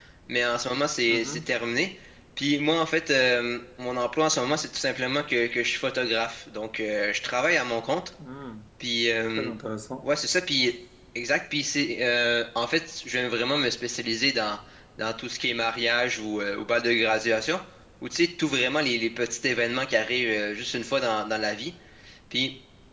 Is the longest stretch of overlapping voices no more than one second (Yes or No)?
Yes